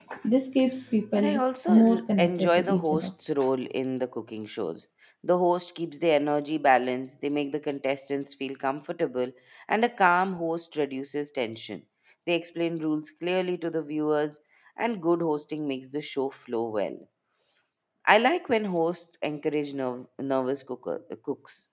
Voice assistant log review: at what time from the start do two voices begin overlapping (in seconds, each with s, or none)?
1.1 s